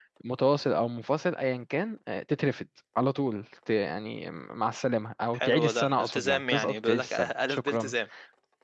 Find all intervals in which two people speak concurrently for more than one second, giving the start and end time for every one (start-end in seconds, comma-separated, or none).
5.3-7.9